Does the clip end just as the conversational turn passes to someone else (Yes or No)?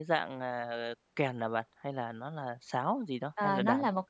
Yes